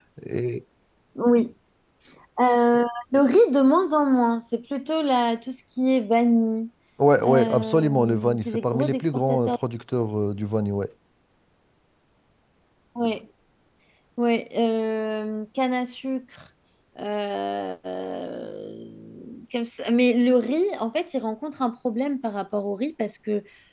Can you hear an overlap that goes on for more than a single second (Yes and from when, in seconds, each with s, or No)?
Yes, from 7.2 s